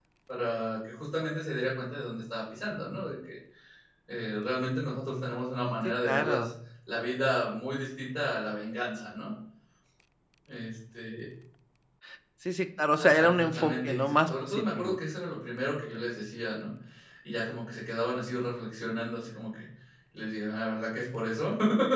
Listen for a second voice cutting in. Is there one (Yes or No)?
Yes